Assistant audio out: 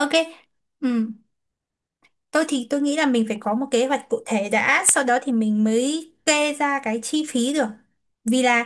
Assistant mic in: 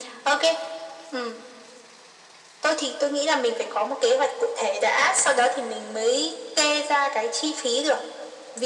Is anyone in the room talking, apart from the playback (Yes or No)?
No